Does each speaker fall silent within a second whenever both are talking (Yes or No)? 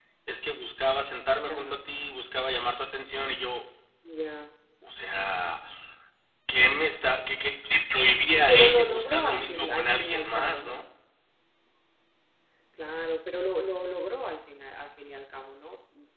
No